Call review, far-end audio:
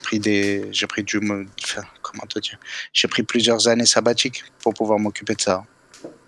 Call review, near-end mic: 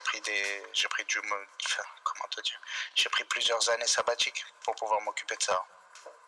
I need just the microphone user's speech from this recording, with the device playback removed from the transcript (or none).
none